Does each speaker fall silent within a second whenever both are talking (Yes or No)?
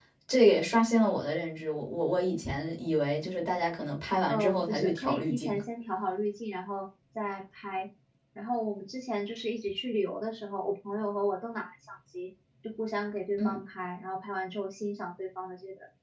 No